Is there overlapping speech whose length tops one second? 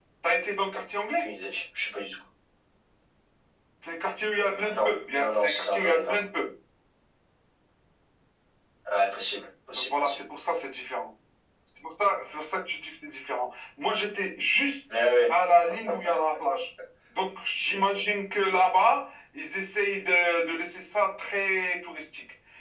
Yes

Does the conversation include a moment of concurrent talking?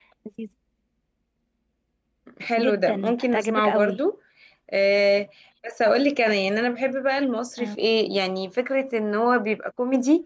Yes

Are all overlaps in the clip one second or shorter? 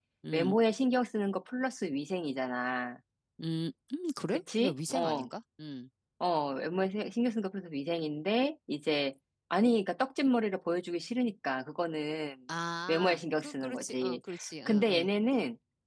No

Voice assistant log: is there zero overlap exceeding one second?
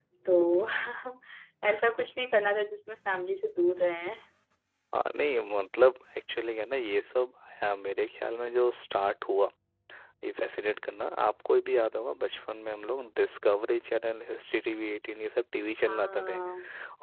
Yes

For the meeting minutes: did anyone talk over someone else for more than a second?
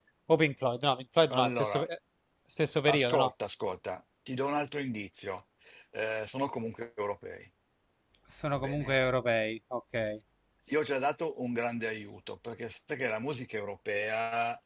No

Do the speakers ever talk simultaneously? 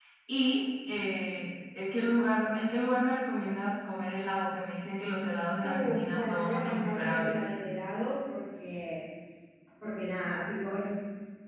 Yes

